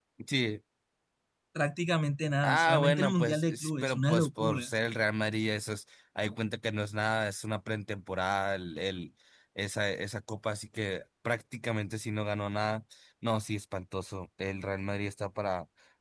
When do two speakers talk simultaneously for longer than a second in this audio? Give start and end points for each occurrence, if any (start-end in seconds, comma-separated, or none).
2.4-4.7